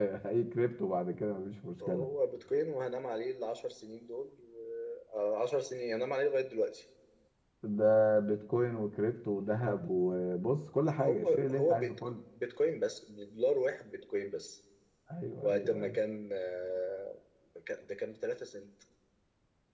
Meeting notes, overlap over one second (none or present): present